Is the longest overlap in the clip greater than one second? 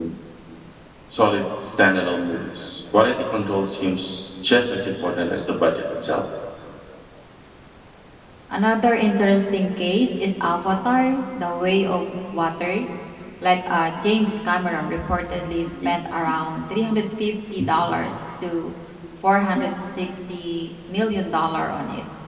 No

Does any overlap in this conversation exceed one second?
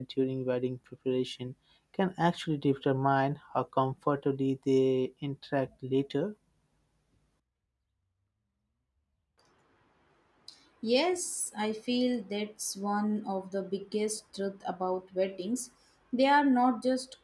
No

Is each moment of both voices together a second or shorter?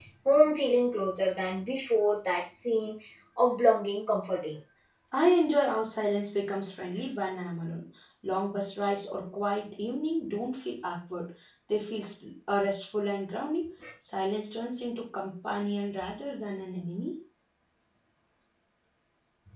Yes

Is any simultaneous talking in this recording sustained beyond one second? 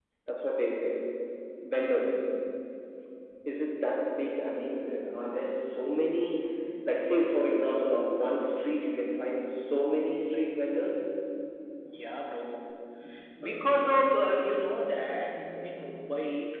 No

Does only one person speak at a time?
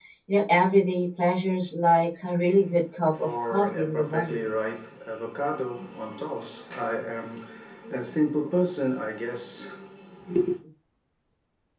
No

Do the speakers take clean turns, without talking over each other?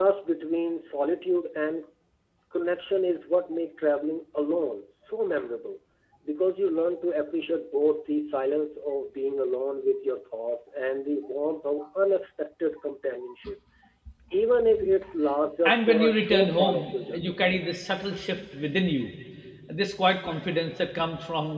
No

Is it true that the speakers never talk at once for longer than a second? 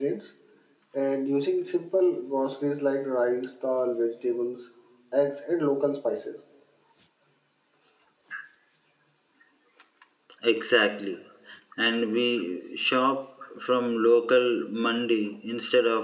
Yes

